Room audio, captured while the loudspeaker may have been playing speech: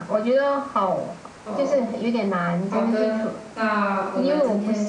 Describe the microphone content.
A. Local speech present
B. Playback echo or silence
A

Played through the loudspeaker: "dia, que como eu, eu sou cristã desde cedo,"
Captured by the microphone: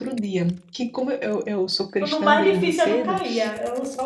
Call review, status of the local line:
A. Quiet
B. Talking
B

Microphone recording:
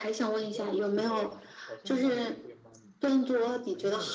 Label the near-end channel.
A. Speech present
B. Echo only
A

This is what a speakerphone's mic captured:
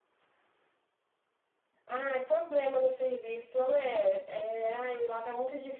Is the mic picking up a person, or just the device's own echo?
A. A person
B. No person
B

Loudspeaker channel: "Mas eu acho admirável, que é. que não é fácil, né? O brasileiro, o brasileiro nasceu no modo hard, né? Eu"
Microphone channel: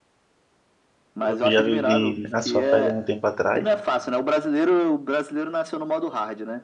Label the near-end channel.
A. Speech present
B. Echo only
A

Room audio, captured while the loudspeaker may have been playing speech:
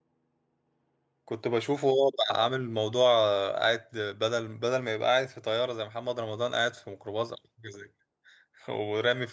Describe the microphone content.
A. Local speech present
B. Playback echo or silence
A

